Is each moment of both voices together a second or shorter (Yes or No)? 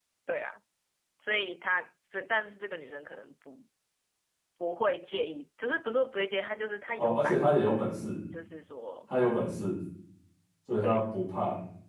Yes